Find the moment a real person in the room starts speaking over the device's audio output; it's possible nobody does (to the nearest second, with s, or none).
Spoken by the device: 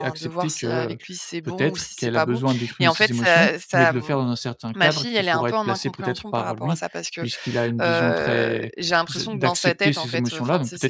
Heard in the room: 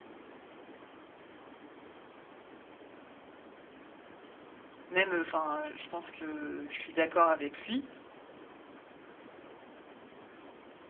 5 s